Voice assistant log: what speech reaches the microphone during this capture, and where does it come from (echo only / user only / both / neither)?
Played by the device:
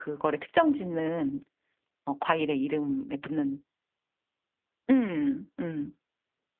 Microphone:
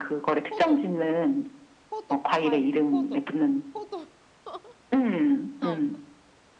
both